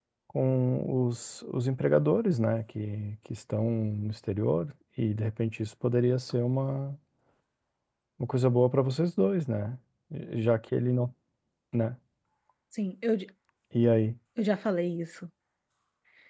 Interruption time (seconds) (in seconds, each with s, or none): none